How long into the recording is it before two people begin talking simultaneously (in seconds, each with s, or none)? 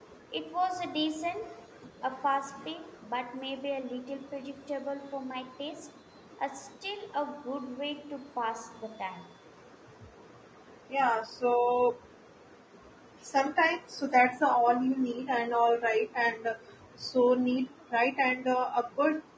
none